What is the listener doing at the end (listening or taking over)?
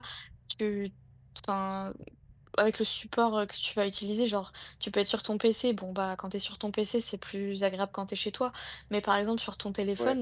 listening